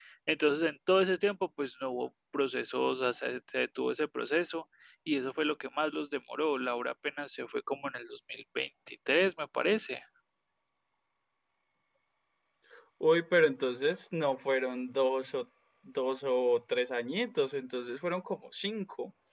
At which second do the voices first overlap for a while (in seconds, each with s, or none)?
none